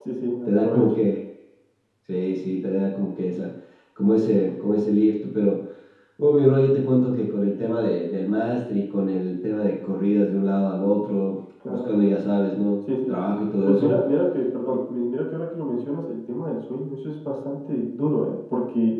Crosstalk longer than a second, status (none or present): none